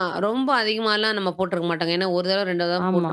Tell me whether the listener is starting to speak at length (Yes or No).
Yes